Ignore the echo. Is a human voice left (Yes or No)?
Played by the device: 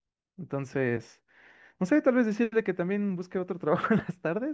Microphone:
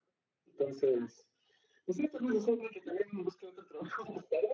No